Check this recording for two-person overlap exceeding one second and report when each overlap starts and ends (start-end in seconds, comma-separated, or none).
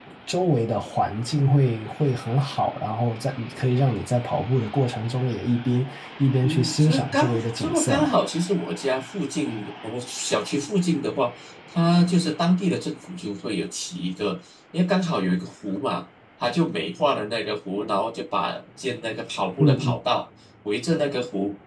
6.4-8.1